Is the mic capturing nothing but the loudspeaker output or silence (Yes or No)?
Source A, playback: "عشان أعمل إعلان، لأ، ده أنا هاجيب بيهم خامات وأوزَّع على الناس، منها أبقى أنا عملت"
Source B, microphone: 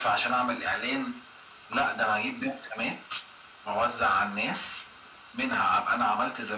Yes